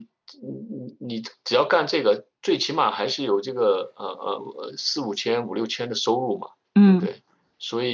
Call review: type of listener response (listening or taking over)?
listening